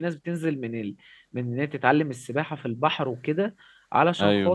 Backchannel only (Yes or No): Yes